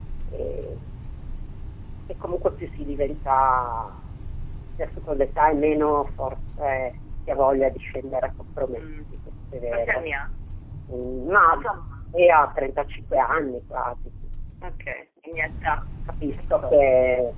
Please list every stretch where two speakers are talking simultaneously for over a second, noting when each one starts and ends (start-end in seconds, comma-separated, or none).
none